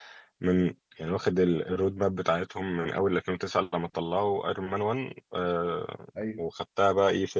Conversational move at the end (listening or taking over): listening